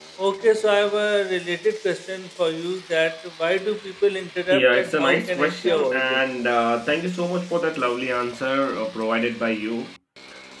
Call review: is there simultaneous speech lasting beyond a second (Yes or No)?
Yes